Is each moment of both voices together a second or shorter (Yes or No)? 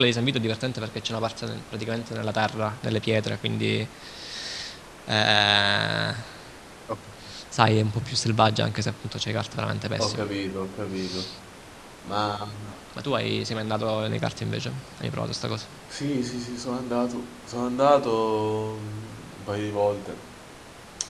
Yes